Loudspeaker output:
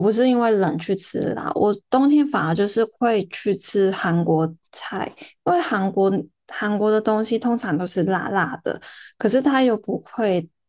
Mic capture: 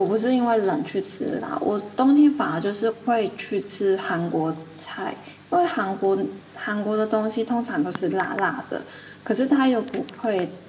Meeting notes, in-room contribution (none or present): none